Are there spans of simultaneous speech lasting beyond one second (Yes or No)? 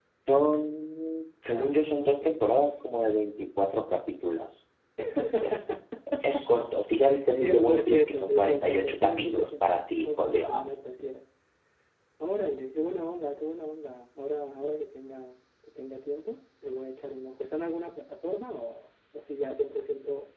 Yes